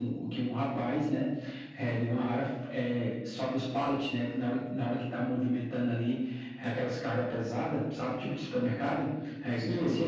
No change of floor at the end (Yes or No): Yes